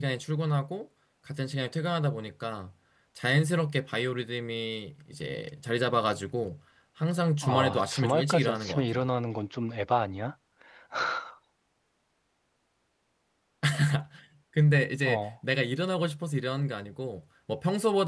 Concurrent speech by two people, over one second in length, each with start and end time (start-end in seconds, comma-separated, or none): 7.4-9.0